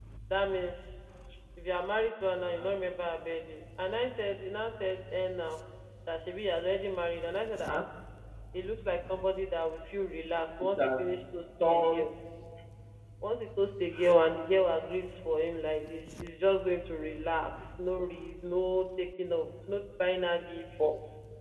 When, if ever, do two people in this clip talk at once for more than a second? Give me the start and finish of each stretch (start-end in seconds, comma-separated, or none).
none